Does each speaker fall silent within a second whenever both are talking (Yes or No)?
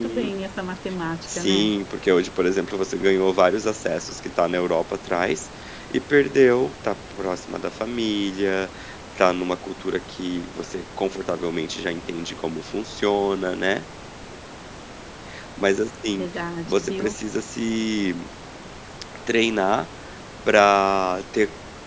Yes